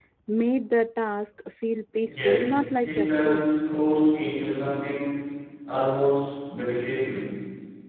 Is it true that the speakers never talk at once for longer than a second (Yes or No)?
No